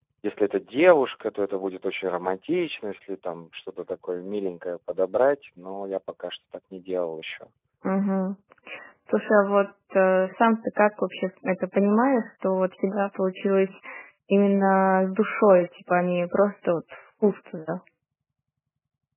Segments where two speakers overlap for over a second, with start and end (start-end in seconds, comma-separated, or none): none